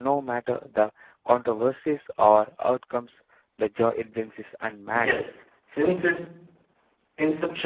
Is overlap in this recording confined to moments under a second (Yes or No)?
Yes